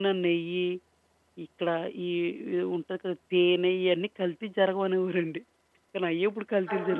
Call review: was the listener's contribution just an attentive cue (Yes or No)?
No